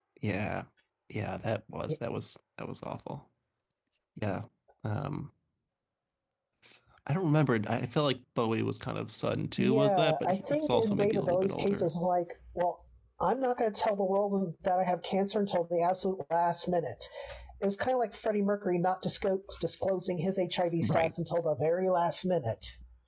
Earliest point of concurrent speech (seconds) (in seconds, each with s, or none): 9.6 s